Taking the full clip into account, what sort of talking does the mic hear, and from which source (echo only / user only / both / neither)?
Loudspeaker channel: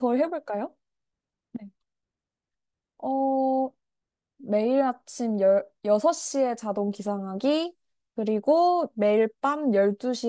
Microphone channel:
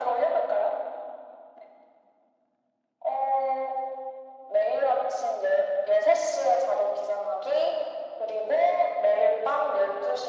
echo only